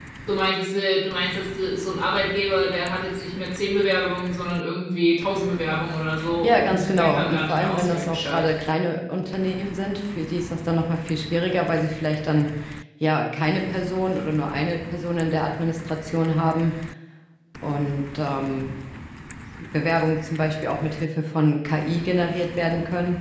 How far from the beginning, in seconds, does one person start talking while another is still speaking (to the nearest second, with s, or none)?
6 s